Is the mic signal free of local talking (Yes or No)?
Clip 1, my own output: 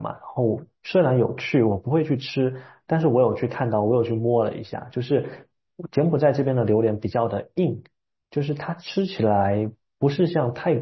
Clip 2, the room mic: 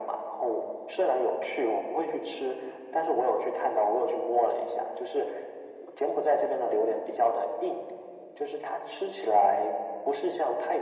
Yes